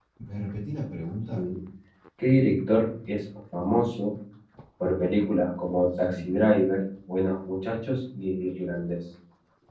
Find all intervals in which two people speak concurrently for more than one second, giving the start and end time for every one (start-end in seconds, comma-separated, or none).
none